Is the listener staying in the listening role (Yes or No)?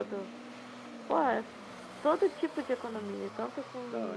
Yes